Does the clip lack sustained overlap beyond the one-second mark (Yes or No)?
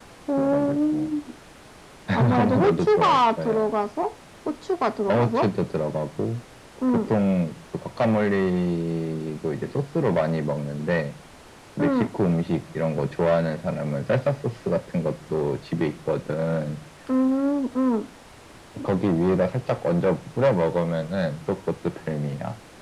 No